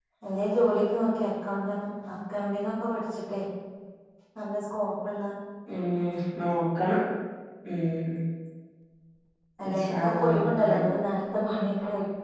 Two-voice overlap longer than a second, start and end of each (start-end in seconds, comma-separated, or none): 9.7-10.9